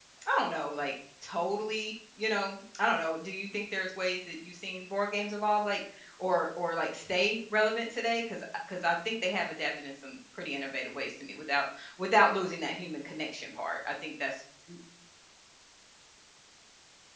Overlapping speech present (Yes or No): No